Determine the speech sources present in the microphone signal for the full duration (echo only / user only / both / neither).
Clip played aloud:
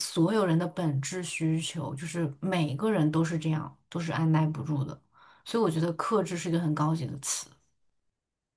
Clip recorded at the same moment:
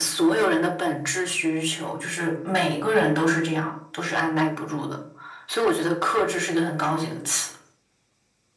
echo only